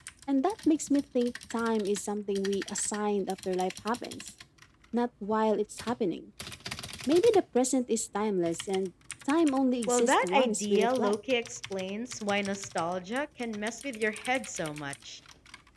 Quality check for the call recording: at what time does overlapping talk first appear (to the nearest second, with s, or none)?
10 s